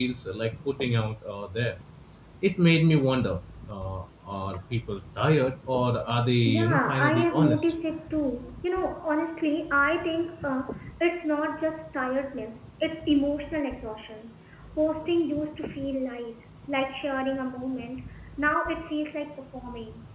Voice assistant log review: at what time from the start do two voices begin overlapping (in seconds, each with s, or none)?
6.5 s